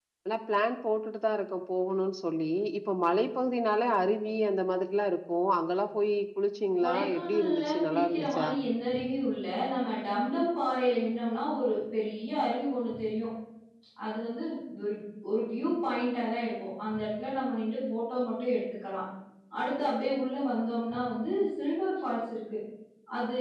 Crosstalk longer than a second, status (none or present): present